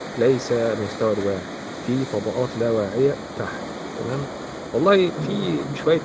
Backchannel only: Yes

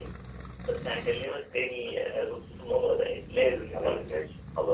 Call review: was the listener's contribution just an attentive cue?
No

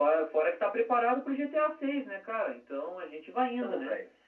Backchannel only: No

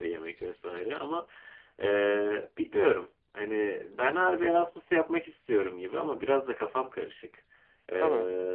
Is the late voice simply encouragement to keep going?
Yes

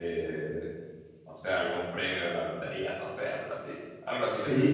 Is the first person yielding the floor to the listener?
Yes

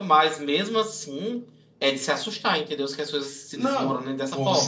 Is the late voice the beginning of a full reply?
Yes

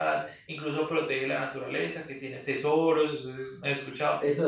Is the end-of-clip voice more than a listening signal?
Yes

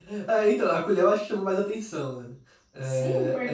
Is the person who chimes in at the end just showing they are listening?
No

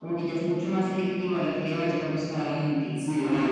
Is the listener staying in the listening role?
No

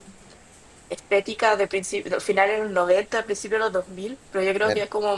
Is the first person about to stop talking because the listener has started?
No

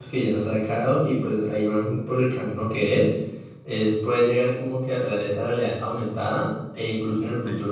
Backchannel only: Yes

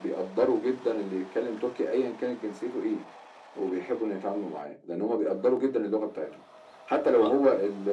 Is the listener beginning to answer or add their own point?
No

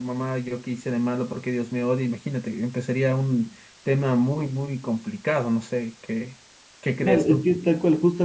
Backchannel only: No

